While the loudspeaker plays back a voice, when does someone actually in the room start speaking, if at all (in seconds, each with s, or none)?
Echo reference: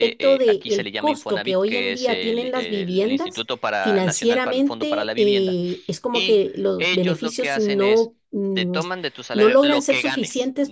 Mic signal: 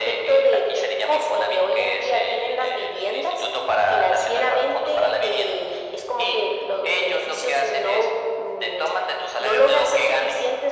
none